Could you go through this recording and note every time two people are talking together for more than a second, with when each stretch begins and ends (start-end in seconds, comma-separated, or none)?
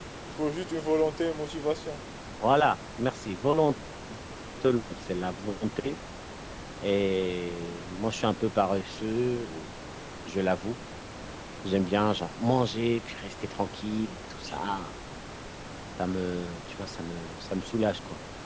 none